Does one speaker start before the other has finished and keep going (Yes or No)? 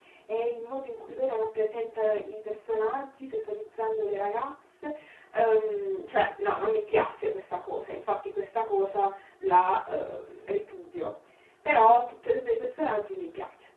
No